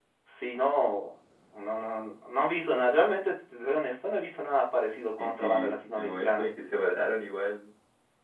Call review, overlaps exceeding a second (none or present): present